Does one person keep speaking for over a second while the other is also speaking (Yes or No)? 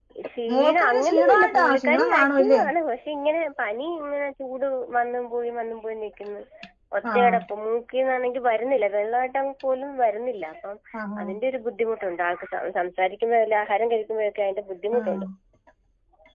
Yes